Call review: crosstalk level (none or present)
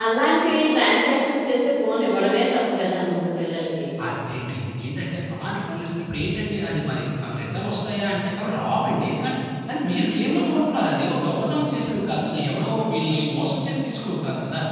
none